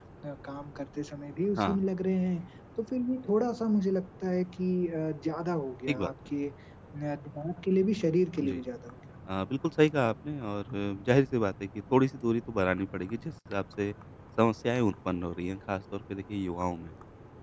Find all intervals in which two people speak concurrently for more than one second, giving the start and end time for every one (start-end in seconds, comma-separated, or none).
none